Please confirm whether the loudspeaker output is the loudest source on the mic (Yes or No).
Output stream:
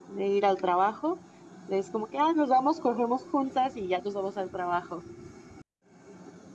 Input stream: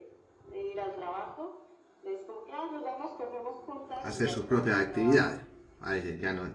No